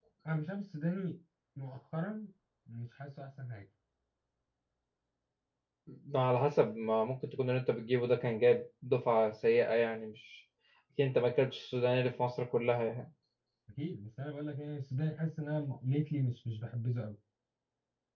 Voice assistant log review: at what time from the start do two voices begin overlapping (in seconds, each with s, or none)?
none